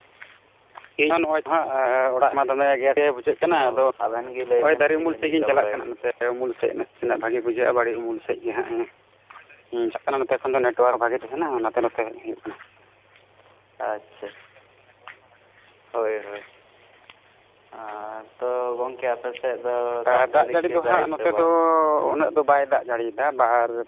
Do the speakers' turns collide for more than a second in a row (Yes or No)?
Yes